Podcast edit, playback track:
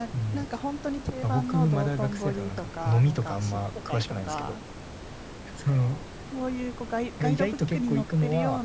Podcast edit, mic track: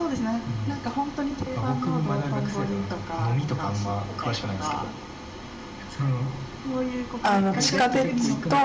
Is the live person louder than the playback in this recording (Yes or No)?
Yes